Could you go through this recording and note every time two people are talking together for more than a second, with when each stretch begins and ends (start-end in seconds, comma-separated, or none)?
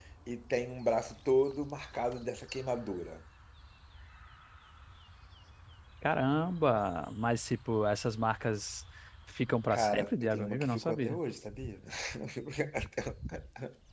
9.7-11.2